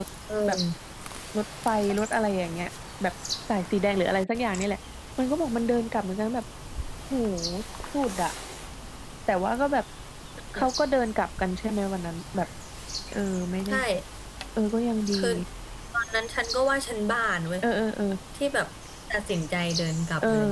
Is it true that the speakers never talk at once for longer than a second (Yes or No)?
Yes